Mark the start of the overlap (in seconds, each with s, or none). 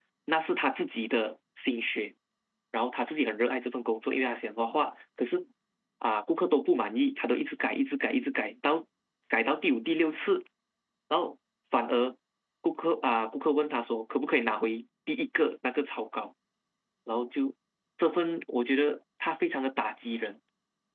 none